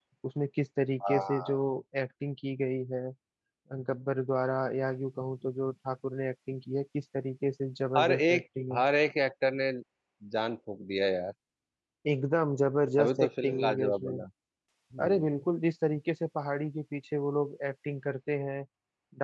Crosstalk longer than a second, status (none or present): present